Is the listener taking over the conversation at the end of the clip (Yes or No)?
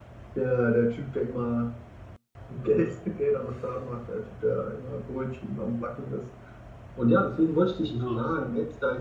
No